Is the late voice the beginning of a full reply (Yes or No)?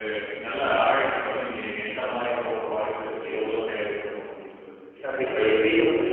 Yes